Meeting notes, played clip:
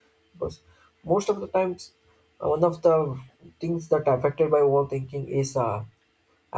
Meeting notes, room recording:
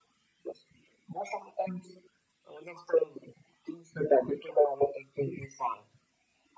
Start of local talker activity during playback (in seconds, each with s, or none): none